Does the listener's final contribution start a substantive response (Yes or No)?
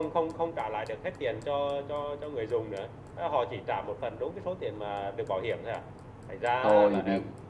Yes